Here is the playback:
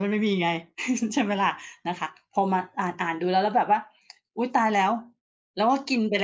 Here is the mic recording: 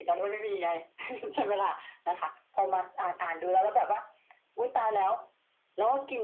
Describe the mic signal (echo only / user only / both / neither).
echo only